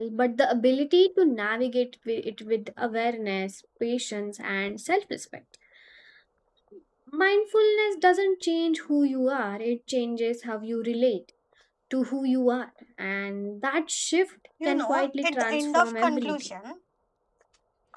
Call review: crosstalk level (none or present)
present